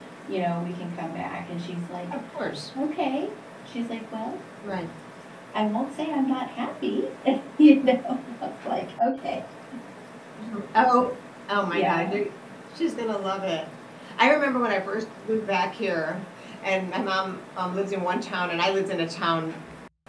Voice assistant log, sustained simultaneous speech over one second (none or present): none